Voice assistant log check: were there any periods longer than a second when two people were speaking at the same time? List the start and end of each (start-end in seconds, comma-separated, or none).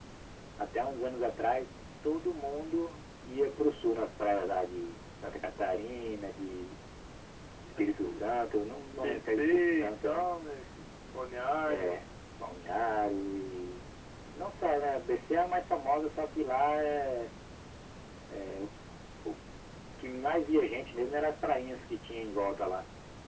9.0-10.3